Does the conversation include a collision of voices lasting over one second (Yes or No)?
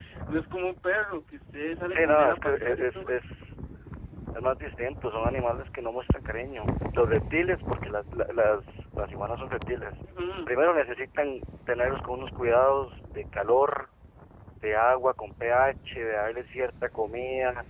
Yes